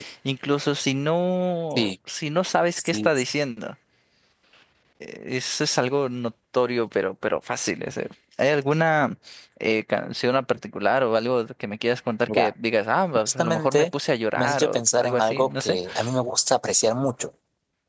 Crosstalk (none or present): present